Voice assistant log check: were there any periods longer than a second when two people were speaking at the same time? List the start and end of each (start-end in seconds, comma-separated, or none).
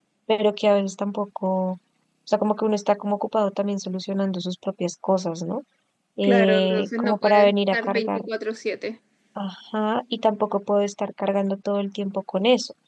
6.2-8.2